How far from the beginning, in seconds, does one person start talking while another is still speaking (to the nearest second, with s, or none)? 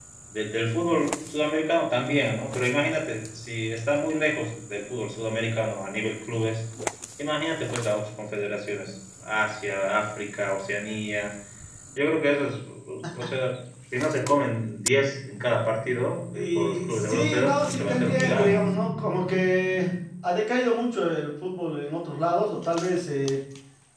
16 s